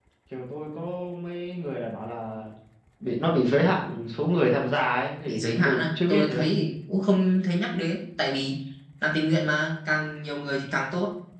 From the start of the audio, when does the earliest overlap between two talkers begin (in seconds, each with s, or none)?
5.2 s